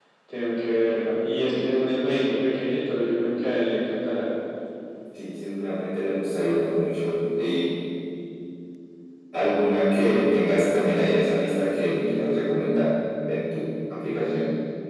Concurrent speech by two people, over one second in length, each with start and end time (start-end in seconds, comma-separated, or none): none